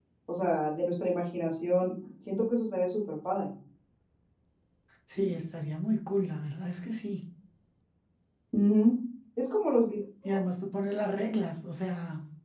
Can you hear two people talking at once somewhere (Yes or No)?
No